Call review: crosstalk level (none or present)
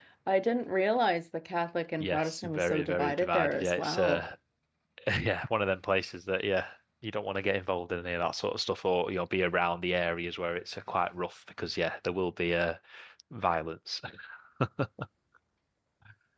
present